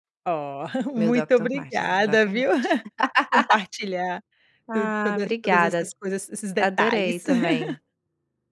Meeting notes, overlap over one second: present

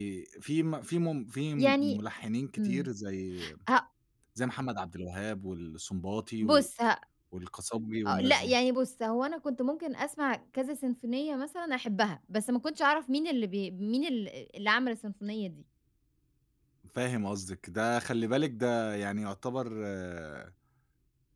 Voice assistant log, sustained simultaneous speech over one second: none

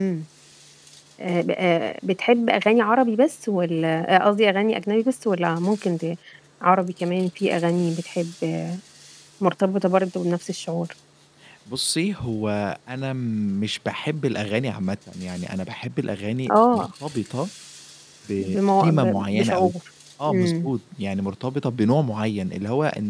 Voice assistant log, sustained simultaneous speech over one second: present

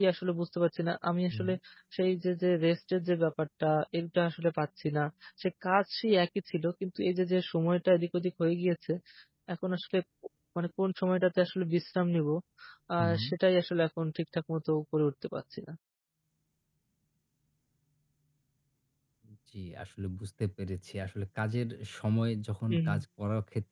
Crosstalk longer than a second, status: none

